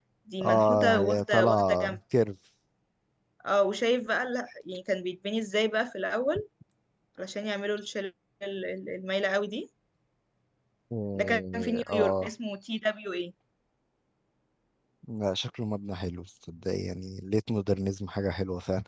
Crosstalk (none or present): present